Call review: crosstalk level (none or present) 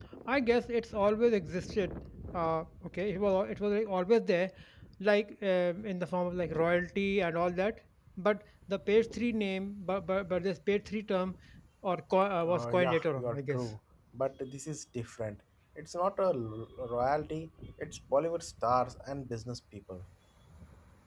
present